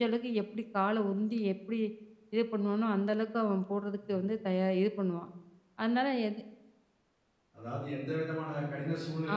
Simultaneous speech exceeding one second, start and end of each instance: none

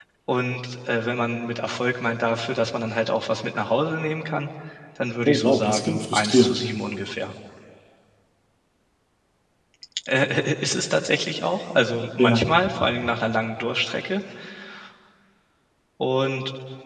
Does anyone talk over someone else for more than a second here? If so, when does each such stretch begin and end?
5.3-6.6

